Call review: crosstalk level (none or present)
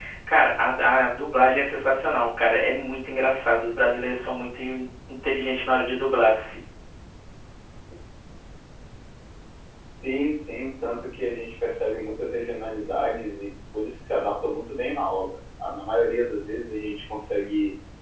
none